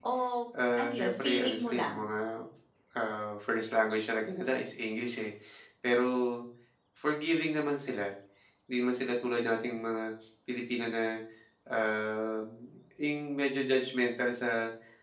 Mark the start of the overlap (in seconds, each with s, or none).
0.8 s